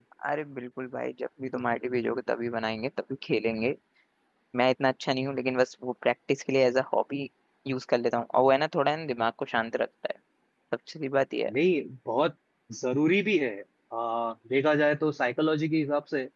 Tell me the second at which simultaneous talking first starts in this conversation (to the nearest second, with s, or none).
none